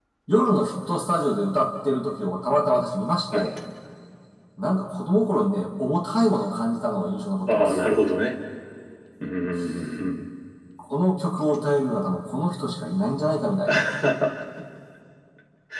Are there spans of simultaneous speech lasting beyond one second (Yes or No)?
No